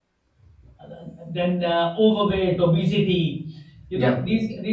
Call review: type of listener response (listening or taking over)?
listening